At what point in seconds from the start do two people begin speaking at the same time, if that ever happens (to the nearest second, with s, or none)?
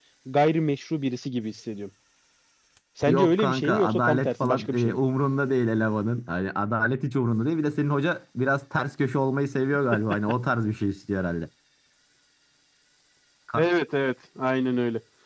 3 s